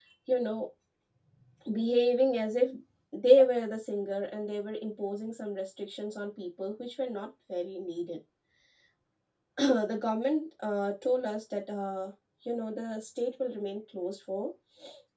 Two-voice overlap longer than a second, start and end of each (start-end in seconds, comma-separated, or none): none